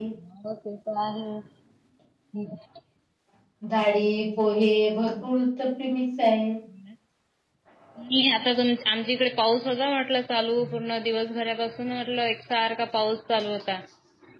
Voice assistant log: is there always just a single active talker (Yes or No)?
Yes